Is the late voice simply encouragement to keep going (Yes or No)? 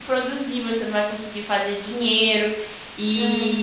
Yes